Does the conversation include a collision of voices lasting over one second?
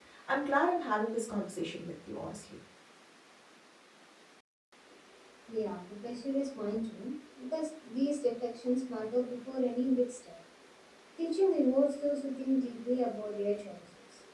No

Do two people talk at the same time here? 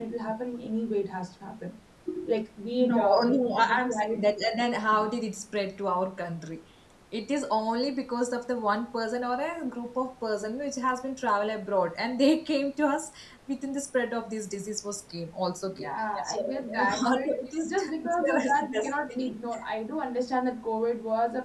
Yes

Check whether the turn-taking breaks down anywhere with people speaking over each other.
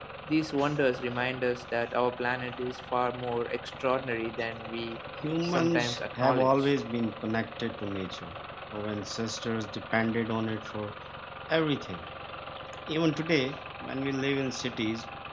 Yes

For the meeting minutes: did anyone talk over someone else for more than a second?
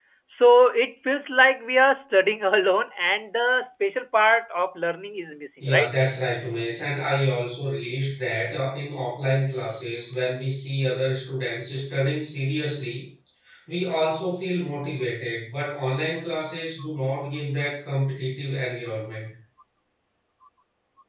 No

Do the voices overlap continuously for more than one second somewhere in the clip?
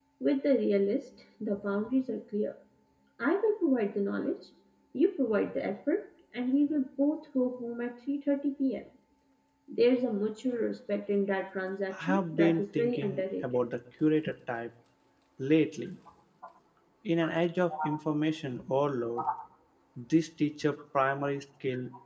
Yes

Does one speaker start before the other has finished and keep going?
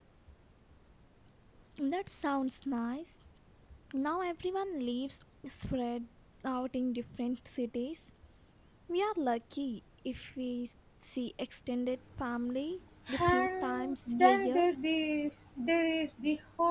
Yes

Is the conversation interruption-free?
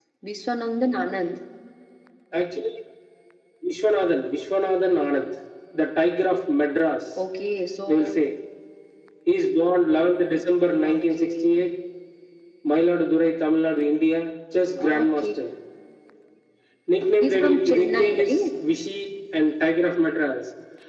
No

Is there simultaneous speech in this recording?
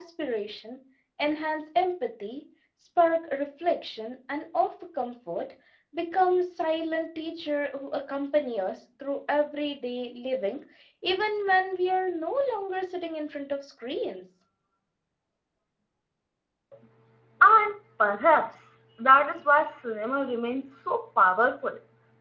No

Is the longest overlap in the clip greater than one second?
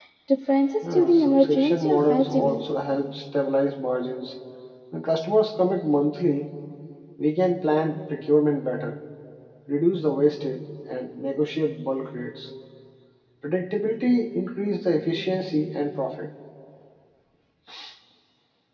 Yes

